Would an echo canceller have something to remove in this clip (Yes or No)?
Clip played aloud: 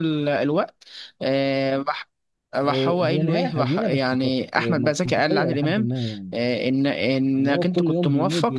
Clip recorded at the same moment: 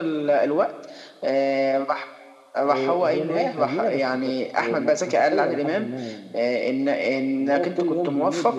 Yes